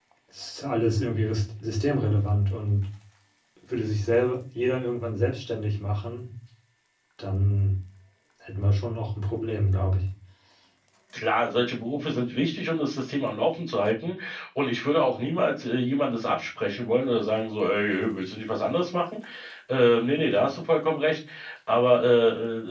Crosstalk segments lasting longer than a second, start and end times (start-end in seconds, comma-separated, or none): none